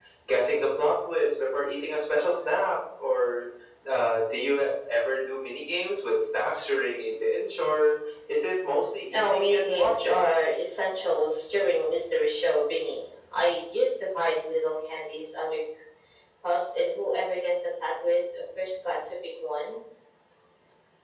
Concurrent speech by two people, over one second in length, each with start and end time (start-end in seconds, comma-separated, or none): 9.1-10.3